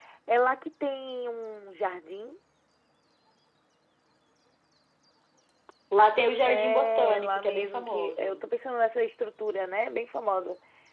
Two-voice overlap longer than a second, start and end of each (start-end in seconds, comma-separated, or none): 6.4-8.4